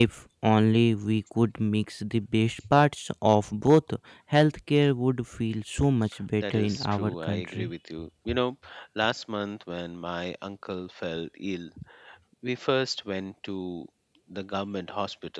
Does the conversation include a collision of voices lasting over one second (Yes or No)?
Yes